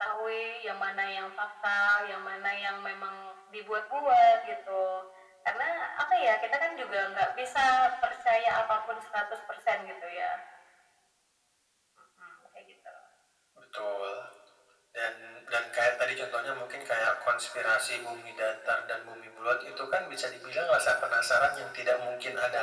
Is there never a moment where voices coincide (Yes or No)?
Yes